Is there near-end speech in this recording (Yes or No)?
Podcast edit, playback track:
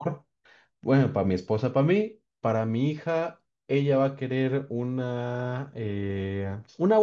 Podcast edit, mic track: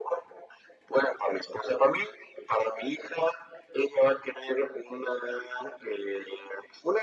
No